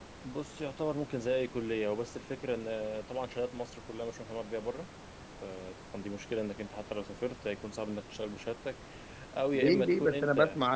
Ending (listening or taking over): taking over